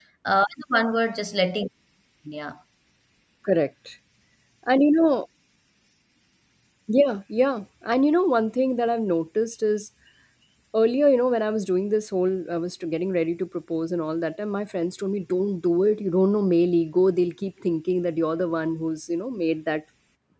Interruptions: none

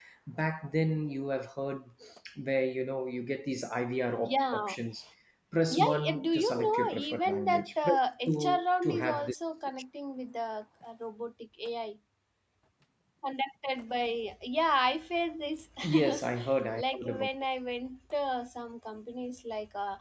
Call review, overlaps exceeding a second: present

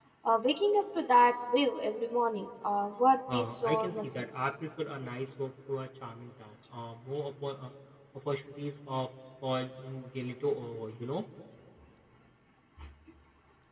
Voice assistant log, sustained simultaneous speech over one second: present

